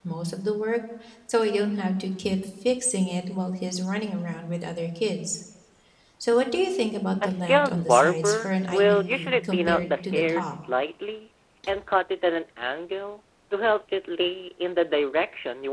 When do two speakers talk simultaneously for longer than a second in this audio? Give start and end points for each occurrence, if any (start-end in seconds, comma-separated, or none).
7.2-10.5